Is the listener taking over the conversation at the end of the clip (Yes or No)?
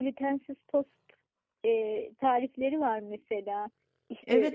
Yes